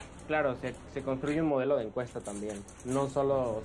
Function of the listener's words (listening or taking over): listening